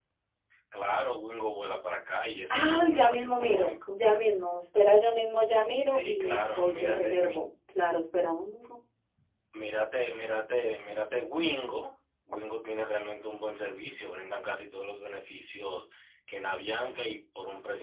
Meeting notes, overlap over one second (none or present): present